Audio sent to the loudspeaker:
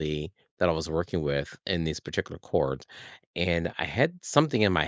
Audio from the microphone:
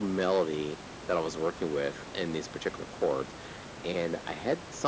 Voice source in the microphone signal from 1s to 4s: echo only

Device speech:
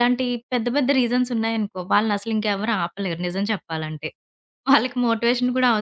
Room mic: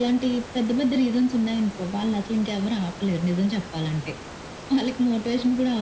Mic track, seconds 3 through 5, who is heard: echo only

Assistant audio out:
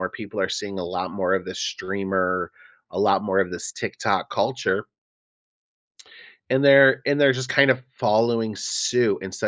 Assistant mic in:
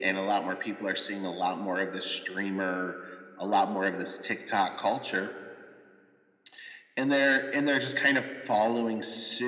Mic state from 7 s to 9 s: echo only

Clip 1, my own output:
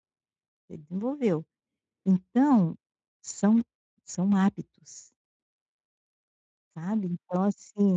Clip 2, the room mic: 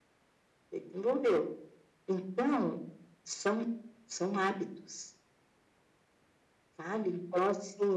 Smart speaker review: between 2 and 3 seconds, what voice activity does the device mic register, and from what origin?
echo only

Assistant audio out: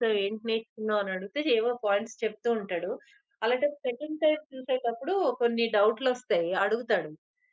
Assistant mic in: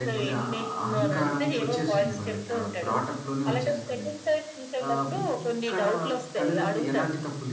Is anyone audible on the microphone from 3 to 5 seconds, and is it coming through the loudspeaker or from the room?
both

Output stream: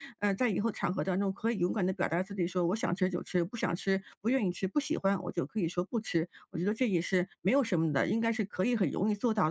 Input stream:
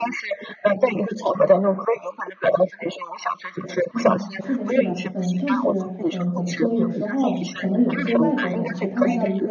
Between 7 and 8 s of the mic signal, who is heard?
both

